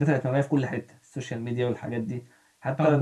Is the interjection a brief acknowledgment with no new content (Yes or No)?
No